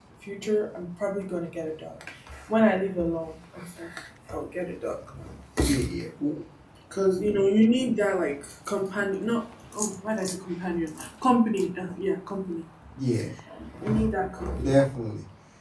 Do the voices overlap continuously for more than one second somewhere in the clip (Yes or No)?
No